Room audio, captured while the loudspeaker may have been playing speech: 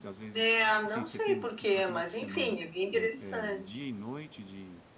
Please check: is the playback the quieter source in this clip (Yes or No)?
No